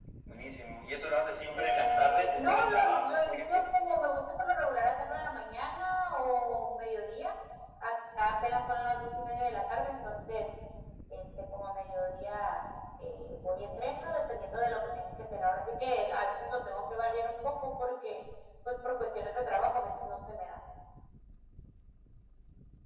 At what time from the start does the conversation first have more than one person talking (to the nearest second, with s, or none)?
2 s